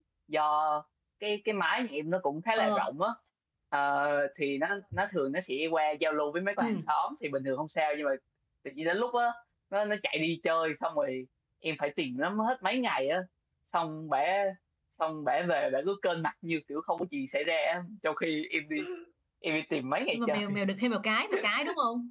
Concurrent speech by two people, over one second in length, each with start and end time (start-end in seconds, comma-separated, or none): none